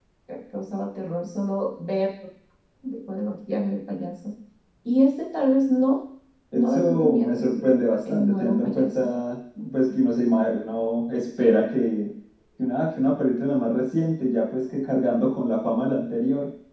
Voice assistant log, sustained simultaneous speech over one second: present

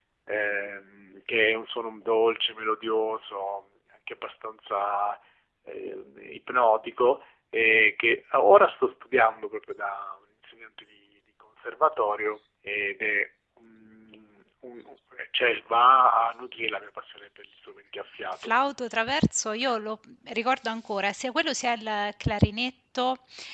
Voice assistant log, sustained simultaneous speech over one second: none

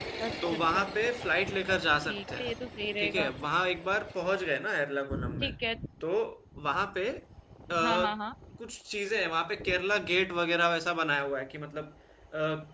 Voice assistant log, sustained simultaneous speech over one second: none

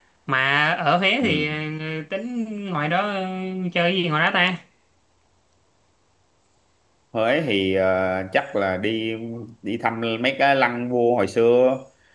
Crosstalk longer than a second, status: none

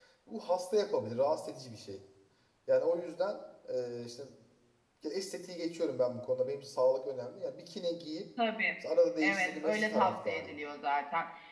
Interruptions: present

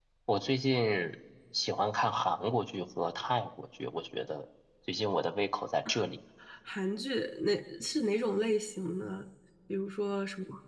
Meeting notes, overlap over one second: none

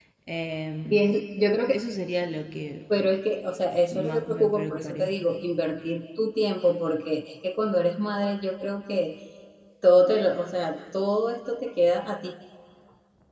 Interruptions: present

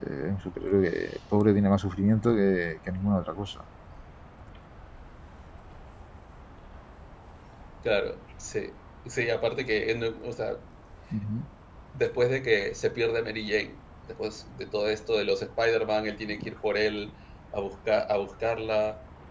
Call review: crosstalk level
none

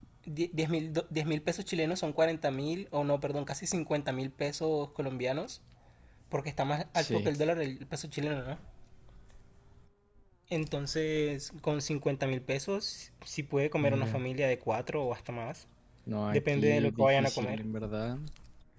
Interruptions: present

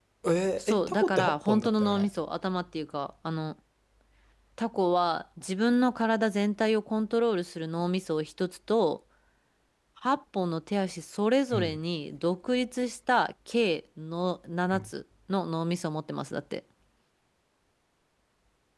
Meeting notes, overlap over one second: present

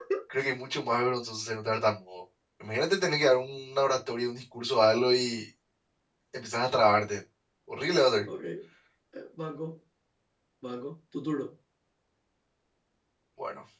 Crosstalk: none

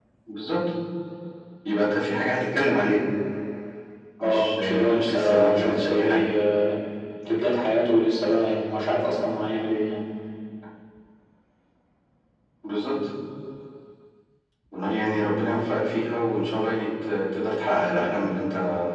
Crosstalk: present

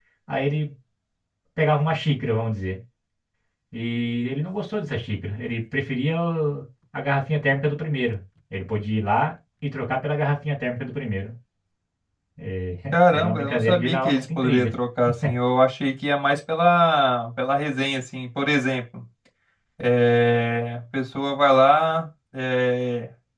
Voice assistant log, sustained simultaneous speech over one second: present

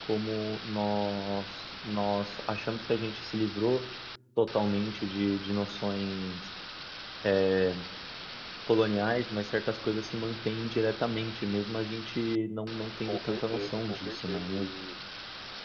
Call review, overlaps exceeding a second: present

